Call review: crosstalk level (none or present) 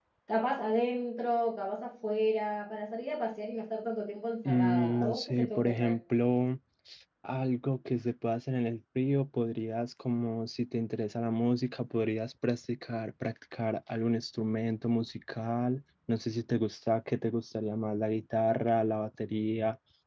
present